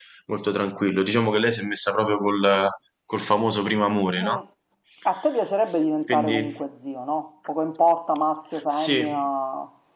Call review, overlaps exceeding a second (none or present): none